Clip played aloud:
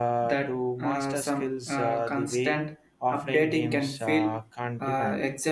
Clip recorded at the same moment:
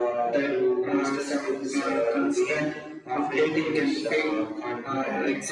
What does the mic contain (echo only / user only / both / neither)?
echo only